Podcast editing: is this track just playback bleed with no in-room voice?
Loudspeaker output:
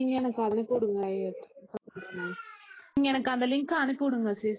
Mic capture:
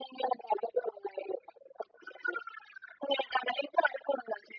Yes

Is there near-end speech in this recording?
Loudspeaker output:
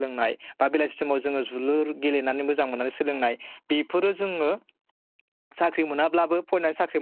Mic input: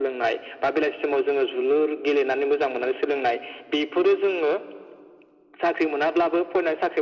No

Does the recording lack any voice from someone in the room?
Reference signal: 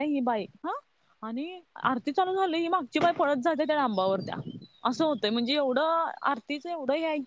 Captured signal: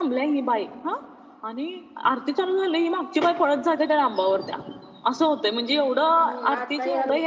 No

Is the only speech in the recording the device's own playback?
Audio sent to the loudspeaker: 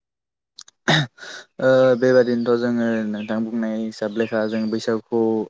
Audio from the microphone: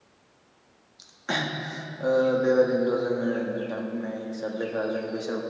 Yes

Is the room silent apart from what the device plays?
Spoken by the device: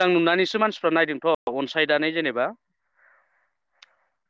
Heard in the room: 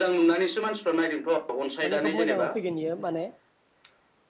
No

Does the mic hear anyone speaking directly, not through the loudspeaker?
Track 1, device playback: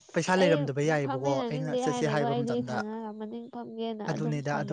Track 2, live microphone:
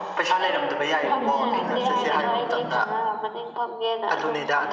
Yes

